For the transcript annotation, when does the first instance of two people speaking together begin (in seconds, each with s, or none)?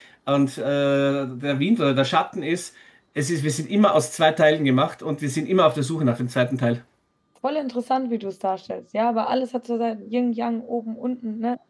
none